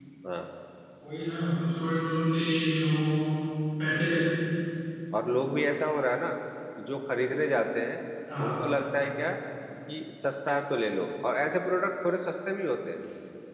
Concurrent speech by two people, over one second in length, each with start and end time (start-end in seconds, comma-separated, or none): none